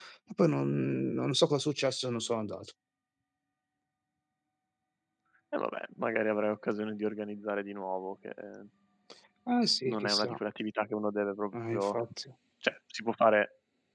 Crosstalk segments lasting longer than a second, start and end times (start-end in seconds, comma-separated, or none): none